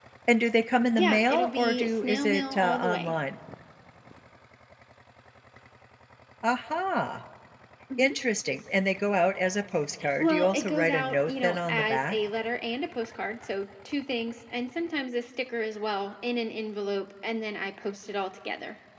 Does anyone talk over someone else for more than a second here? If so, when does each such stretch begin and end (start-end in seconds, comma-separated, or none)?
1.0-3.1, 10.2-12.2